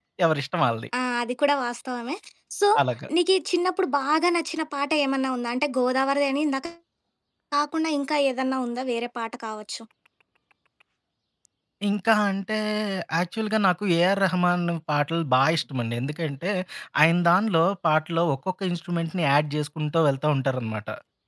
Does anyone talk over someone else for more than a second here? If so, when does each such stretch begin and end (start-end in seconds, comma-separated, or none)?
none